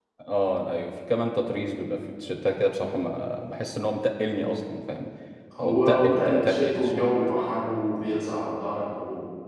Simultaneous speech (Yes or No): Yes